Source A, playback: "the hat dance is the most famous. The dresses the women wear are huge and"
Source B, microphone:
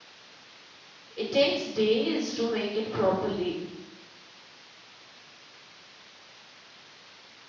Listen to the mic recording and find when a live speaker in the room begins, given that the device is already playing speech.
1.2 s

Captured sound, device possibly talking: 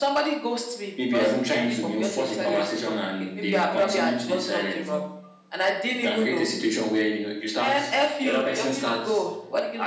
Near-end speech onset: none

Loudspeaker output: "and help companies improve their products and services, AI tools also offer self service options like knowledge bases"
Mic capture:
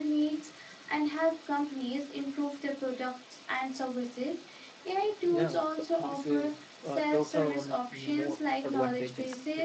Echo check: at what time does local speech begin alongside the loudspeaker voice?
5.2 s

